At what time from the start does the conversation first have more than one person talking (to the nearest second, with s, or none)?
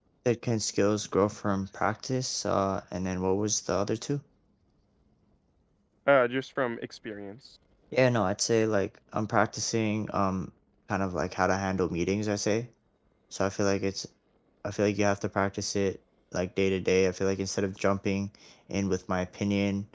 none